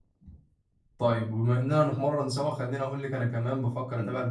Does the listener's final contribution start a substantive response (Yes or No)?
No